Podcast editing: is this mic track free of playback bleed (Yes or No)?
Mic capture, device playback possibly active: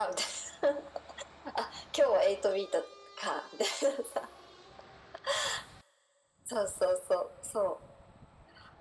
No